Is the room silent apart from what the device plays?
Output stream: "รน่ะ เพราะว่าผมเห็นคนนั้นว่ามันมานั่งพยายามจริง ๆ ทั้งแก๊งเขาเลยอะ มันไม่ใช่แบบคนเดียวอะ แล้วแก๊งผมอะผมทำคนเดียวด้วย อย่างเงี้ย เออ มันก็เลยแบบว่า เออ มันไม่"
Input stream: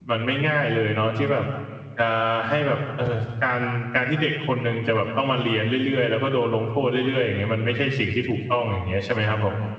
No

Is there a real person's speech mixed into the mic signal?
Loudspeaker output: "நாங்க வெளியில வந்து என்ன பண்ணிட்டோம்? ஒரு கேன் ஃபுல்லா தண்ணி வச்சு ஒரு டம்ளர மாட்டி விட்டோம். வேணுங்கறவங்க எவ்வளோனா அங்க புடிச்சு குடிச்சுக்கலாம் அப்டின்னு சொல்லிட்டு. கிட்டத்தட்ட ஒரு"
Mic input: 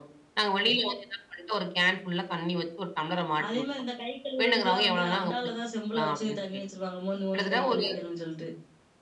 Yes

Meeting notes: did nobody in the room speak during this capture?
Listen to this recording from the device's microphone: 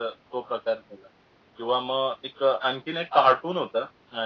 Yes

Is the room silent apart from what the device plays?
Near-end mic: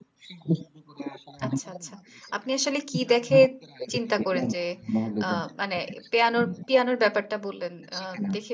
No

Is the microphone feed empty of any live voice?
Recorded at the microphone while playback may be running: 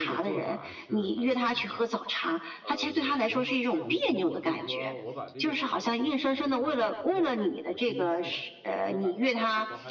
No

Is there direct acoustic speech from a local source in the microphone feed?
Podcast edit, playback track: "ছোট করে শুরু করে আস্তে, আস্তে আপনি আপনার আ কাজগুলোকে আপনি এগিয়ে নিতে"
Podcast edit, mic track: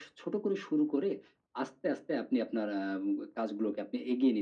No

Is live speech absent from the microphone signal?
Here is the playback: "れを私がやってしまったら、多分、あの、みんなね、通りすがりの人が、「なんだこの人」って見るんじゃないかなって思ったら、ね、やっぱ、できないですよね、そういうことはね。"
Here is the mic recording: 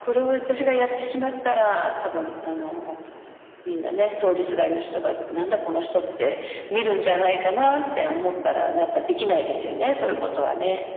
Yes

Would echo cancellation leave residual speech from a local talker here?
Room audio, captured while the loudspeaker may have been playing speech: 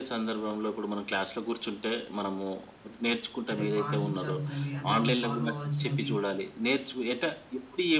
Yes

